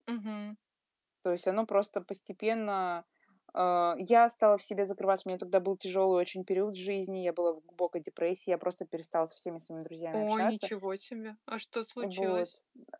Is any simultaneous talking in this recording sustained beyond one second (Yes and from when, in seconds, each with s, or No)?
No